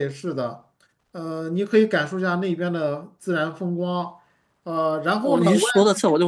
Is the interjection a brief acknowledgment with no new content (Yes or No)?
No